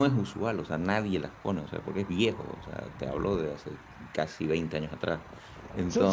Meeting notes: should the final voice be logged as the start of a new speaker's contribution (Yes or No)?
Yes